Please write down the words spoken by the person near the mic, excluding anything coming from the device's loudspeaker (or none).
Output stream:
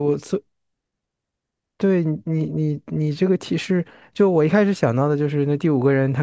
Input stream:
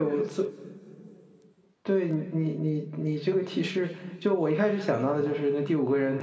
none